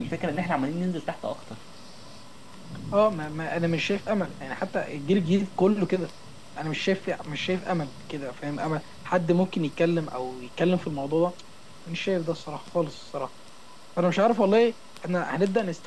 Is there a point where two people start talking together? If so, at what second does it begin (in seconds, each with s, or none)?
none